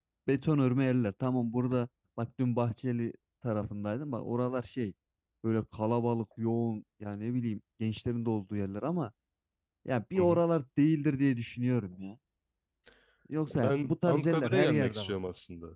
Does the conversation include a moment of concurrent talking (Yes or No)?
Yes